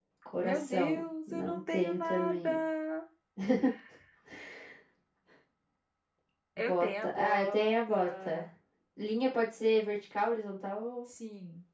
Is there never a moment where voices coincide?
No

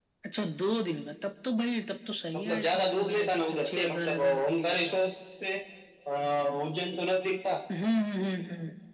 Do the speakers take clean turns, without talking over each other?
No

